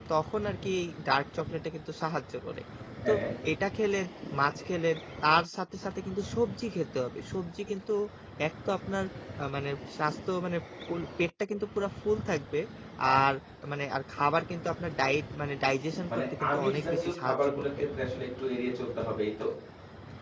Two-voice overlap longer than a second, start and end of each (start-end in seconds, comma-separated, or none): 16.1-17.7